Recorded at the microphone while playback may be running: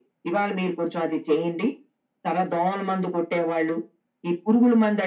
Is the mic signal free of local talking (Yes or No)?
Yes